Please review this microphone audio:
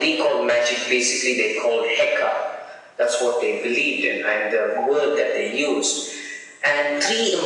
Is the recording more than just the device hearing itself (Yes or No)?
No